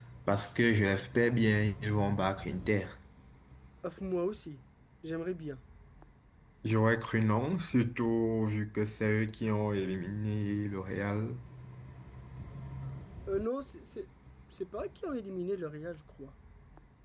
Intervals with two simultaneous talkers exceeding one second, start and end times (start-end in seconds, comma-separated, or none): none